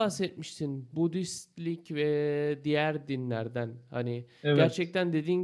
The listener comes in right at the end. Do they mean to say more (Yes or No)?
No